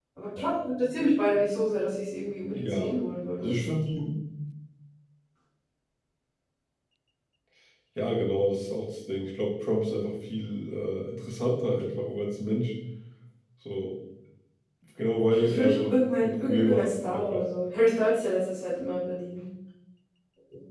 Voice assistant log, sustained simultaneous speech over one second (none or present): present